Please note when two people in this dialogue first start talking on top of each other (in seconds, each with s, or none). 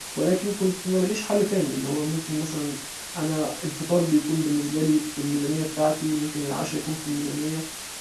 none